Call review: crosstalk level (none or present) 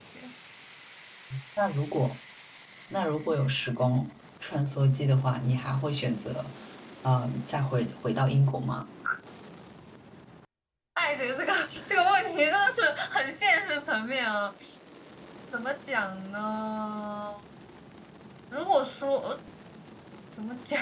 none